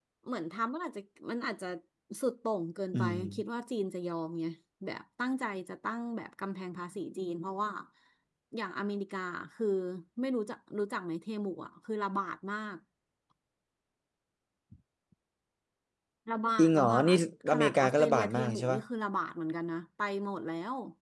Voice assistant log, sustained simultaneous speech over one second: present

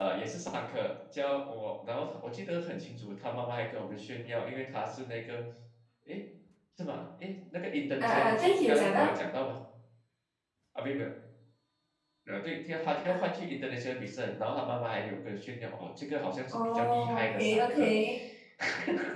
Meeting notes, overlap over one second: present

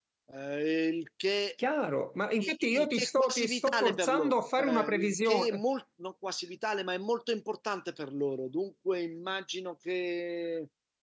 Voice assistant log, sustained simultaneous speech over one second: present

